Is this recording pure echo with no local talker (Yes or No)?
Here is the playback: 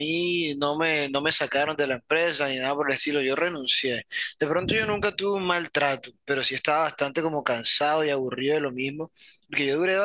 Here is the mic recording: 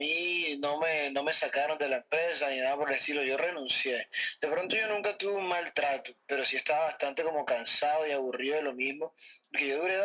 Yes